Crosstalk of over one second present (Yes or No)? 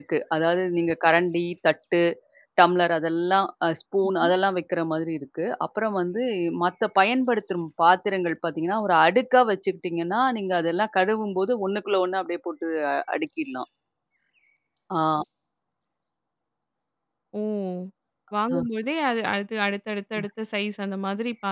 No